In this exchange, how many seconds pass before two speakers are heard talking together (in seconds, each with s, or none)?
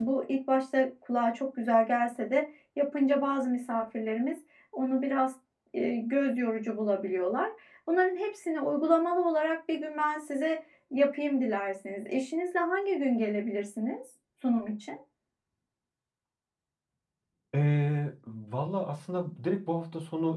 none